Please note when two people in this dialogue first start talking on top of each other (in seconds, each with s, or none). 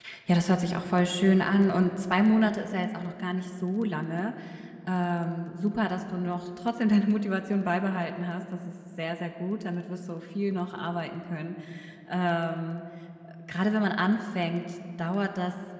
none